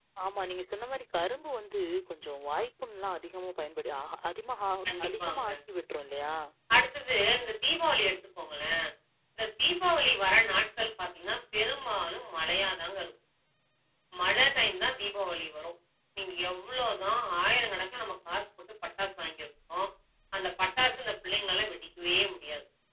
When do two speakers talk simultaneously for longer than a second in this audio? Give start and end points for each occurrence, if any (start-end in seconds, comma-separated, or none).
none